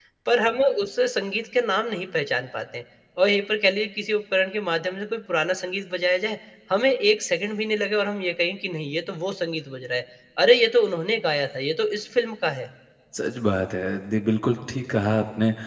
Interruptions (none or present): none